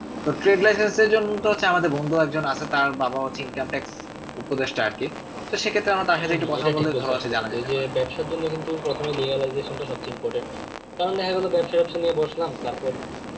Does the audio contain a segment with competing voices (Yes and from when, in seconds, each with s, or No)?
Yes, from 6.2 s